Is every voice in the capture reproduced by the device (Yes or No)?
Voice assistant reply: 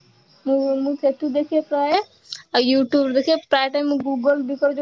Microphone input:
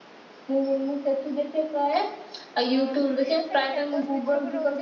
No